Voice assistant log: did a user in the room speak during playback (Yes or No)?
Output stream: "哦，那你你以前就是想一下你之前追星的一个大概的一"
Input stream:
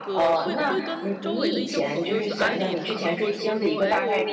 Yes